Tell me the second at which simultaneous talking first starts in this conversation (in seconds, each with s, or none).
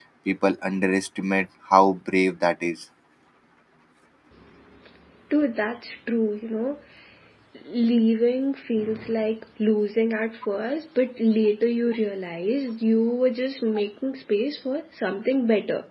none